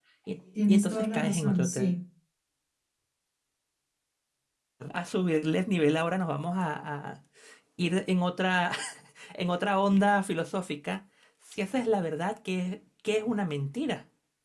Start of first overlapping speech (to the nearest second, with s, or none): 1 s